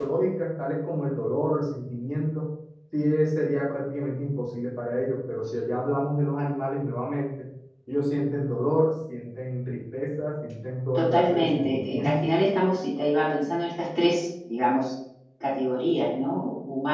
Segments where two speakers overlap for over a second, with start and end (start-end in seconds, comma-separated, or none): 11.0-12.3